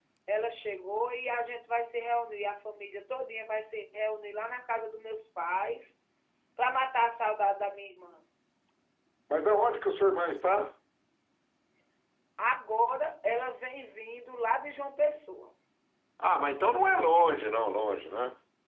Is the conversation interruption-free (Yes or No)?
Yes